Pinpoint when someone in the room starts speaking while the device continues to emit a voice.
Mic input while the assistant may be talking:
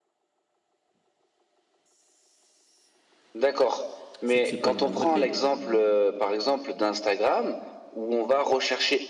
4.2 s

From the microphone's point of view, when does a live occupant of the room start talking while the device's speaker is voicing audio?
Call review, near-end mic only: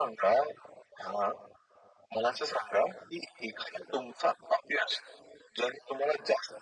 none

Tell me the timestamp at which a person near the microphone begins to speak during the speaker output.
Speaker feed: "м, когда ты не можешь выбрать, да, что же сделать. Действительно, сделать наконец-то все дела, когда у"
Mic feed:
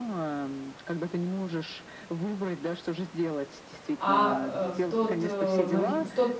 4.0 s

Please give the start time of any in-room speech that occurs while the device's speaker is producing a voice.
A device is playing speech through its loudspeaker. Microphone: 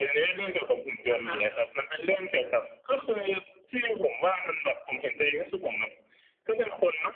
1.1 s

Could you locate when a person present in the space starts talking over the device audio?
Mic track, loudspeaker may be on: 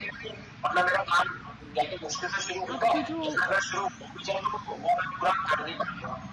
2.7 s

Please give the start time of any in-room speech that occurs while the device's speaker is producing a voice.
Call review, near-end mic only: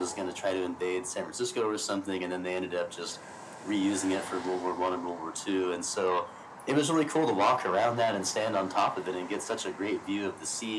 none

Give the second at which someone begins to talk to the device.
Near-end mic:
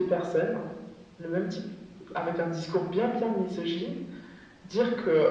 none

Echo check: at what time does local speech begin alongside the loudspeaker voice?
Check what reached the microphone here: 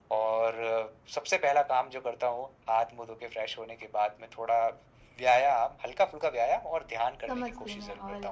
7.2 s

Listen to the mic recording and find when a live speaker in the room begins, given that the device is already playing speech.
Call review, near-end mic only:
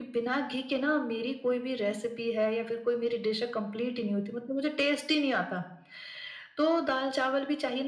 none

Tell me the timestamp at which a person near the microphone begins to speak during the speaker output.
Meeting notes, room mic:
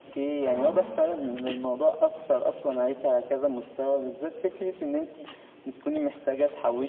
0.4 s

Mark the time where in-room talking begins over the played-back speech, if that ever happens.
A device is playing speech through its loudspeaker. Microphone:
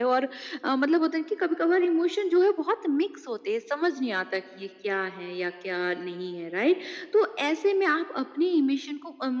none

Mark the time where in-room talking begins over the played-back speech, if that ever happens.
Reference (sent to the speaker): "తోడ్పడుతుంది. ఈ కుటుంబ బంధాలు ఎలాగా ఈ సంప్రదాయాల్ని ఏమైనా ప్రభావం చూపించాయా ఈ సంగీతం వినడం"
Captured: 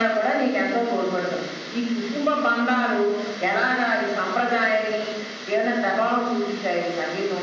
none

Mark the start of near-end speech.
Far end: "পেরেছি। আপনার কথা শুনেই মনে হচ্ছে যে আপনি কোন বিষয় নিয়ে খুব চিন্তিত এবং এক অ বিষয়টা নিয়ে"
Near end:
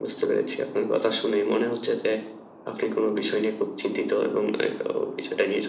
none

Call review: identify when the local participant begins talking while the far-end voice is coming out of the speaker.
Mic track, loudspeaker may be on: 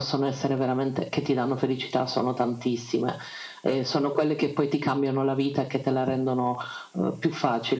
none

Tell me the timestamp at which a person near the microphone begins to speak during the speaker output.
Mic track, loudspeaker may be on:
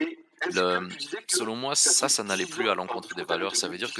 0.5 s

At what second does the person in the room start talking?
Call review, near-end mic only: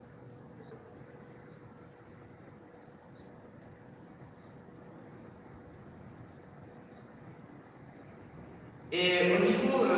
8.9 s

